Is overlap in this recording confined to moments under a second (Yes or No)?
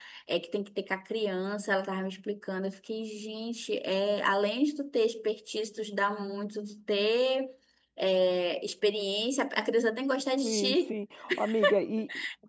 Yes